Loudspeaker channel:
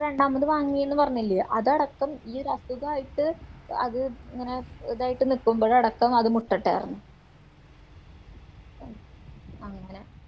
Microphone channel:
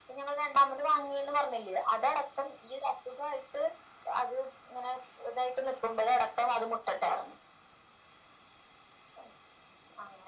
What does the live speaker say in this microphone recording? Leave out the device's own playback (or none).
none